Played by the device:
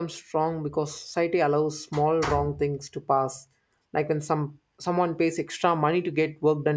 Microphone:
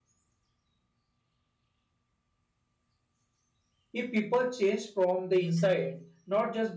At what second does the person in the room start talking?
4 s

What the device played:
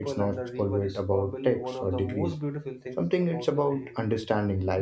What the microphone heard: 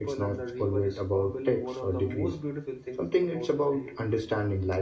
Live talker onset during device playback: none

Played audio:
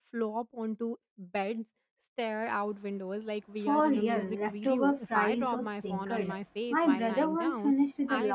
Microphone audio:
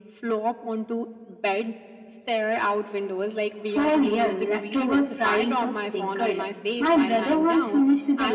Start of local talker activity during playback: none

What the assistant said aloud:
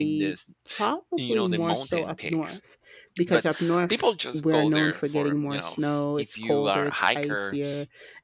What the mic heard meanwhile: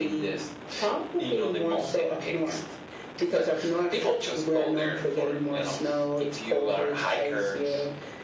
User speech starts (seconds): none

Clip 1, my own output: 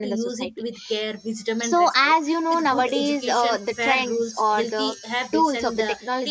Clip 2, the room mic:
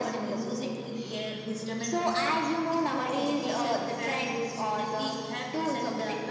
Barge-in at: none

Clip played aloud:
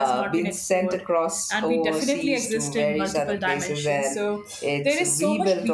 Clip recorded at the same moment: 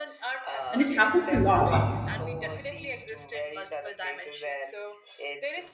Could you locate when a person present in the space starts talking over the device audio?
1 s

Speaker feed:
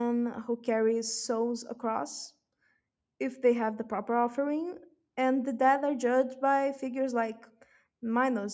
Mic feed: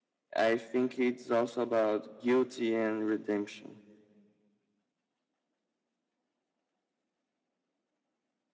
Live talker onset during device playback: 0 s

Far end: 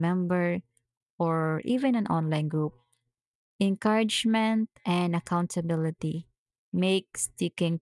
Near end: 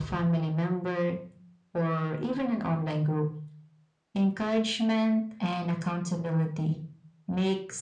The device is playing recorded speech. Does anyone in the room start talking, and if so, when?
none

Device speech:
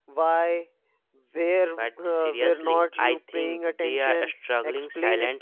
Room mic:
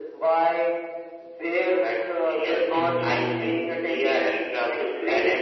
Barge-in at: 3 s

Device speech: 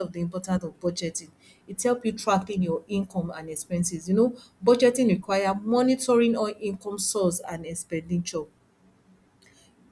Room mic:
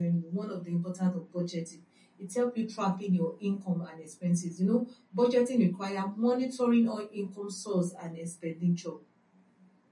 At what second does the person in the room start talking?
none

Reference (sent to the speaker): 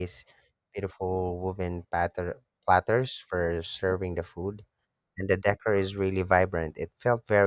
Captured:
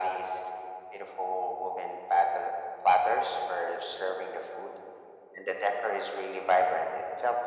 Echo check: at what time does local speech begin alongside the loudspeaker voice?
none

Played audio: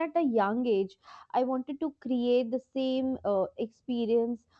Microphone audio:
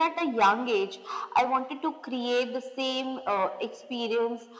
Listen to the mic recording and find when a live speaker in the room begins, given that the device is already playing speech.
none

